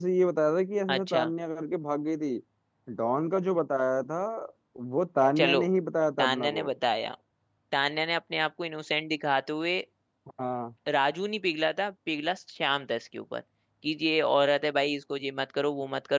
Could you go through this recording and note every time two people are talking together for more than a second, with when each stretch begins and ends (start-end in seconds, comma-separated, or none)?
none